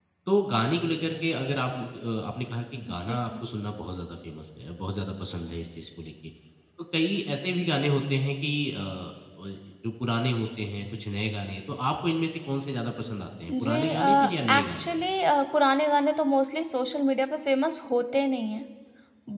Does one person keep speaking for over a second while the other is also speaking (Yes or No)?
Yes